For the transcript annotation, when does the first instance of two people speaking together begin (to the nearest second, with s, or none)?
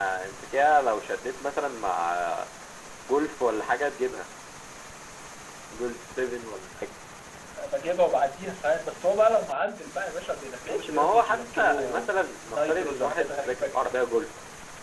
11 s